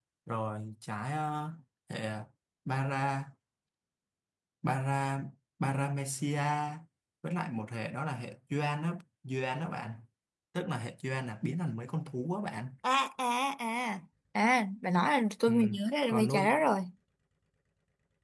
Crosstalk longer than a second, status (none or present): none